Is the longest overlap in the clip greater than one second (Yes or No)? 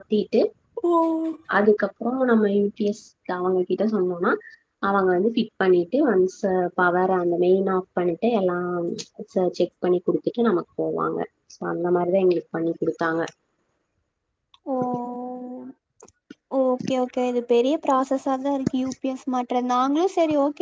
No